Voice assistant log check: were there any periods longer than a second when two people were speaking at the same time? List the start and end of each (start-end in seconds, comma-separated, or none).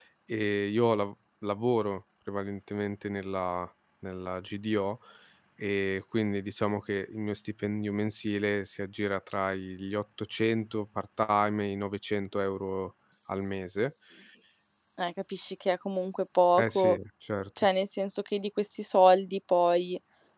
none